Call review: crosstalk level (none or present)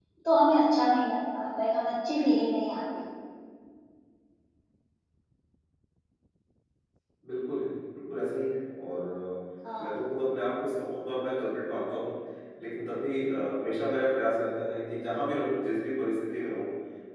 none